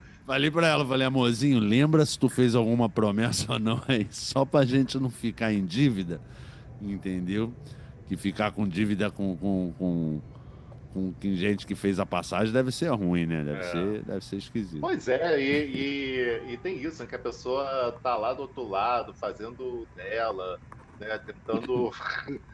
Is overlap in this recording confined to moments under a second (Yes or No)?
Yes